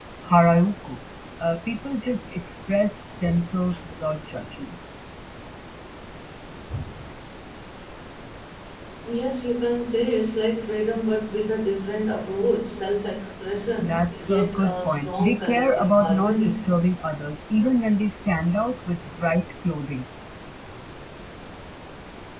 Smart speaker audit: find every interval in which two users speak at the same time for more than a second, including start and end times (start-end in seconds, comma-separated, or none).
13.8-16.6